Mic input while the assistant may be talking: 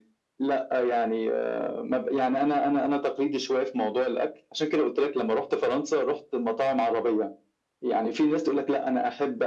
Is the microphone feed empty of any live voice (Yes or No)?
Yes